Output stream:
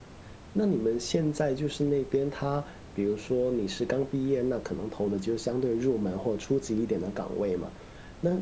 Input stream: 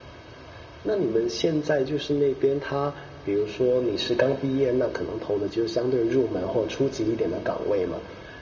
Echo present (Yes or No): Yes